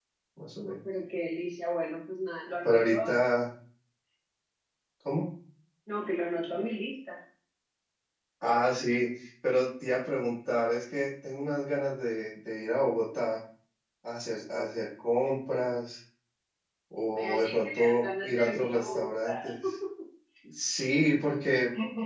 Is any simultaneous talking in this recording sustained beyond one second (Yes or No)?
Yes